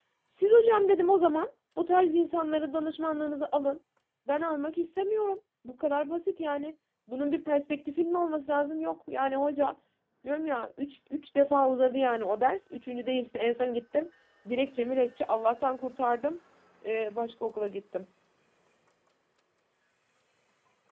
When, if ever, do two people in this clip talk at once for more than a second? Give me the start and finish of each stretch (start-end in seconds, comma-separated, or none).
none